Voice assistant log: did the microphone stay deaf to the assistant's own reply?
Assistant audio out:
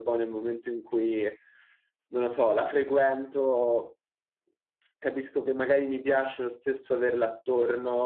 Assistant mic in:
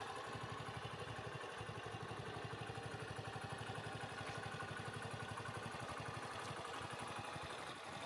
Yes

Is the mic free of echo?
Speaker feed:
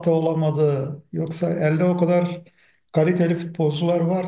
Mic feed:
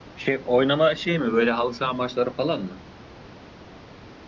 Yes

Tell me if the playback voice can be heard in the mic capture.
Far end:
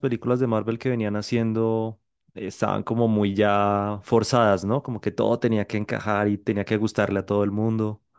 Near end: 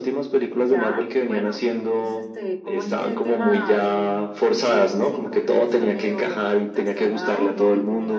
Yes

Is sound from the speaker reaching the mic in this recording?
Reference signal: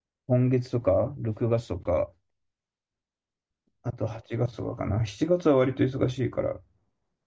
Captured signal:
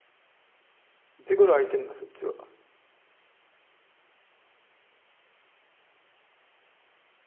No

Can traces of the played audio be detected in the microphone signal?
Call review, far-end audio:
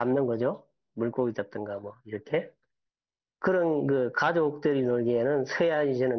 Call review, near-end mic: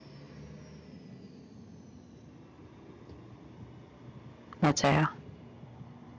No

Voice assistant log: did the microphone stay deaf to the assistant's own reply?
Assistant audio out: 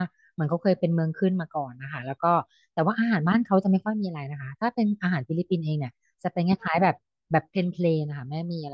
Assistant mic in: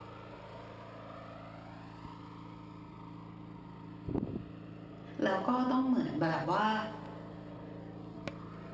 Yes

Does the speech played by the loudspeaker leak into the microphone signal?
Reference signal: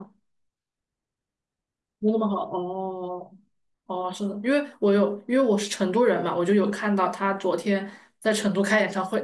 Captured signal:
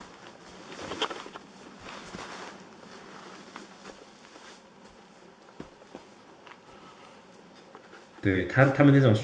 No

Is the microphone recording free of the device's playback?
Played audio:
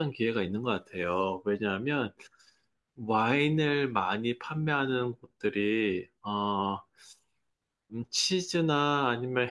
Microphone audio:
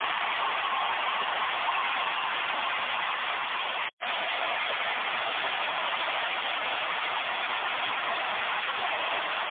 Yes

